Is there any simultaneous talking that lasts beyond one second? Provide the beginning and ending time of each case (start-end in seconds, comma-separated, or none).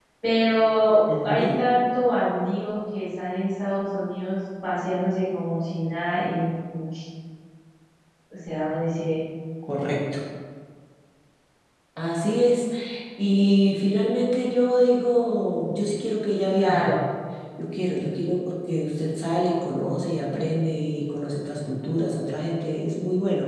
none